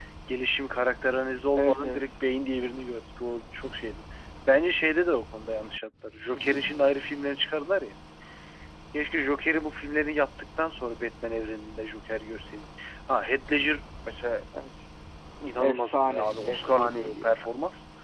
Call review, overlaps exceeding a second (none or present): present